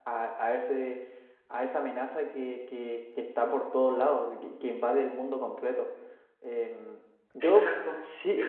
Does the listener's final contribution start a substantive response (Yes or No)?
Yes